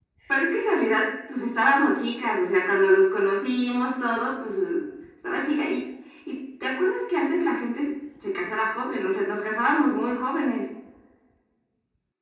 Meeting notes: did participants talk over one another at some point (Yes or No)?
No